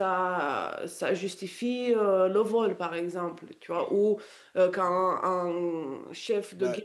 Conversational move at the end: listening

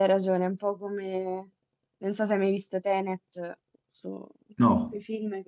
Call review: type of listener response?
listening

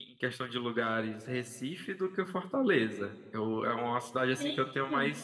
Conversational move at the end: listening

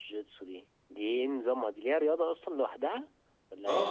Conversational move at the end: taking over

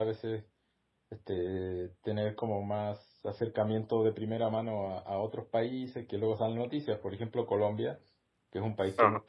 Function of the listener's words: listening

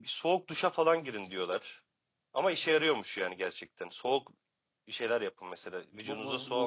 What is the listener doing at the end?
taking over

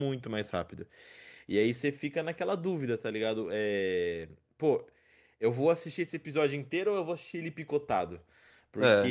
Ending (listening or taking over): listening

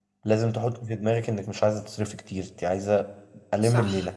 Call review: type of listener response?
taking over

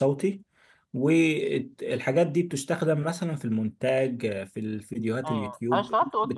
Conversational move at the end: taking over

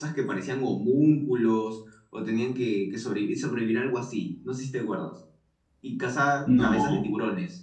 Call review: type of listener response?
listening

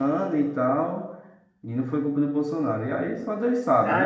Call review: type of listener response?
taking over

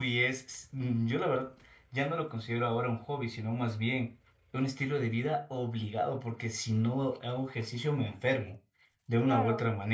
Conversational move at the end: listening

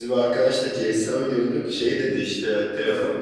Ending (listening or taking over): listening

